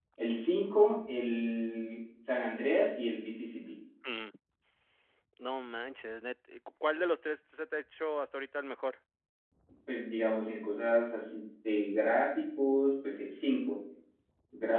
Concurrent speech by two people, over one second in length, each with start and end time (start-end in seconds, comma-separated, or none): none